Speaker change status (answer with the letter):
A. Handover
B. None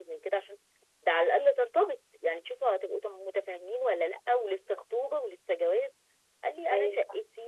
B